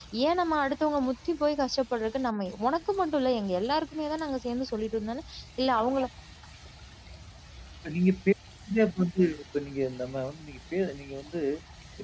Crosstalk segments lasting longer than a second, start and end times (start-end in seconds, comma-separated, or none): none